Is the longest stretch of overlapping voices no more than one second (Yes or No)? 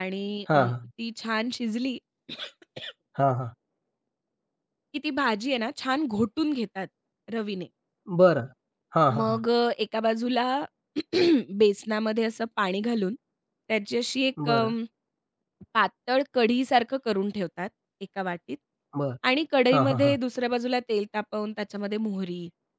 Yes